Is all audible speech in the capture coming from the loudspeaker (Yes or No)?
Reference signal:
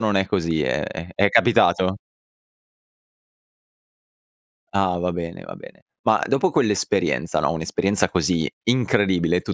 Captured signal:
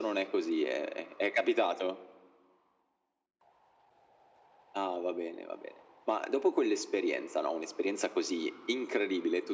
Yes